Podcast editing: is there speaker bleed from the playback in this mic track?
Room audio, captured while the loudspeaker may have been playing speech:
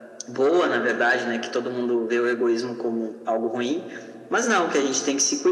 Yes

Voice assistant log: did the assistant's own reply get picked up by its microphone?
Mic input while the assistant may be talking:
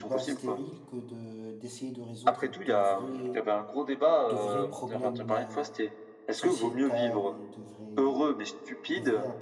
Yes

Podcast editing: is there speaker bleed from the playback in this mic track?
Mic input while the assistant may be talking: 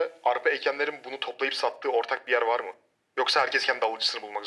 Yes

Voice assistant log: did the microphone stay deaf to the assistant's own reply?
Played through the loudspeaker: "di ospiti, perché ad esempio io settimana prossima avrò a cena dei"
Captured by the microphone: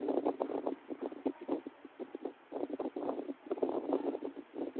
Yes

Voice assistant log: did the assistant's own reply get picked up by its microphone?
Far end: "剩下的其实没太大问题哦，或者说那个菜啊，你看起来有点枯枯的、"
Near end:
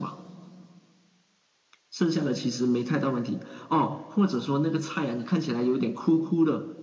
Yes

